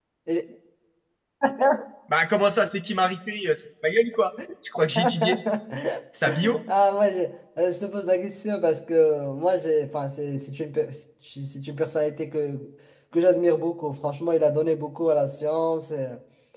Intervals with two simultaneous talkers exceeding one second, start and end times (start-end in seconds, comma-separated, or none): none